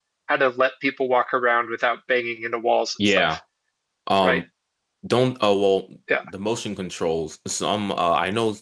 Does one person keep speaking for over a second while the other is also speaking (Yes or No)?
No